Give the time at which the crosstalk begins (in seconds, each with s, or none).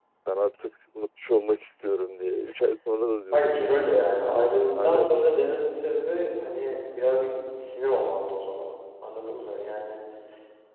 3.3 s